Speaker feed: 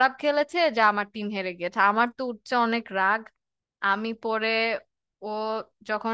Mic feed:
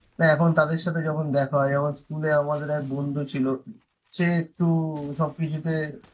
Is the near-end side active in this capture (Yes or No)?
Yes